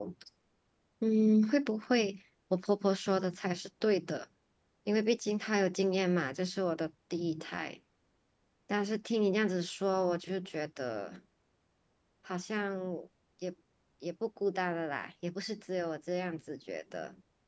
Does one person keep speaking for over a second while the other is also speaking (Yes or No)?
No